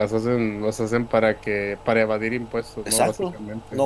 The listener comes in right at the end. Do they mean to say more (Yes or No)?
Yes